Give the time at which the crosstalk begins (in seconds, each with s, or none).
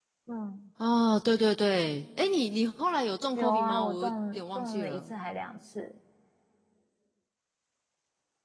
3.4 s